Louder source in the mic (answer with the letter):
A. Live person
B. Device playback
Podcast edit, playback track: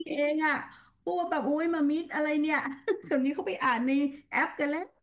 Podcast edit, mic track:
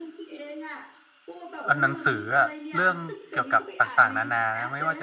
A